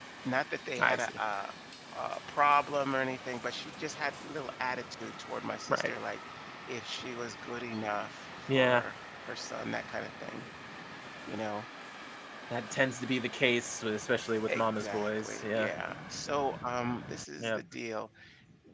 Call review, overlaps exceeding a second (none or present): present